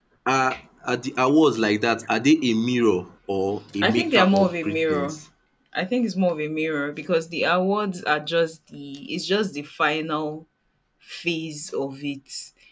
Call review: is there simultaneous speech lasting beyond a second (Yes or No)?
Yes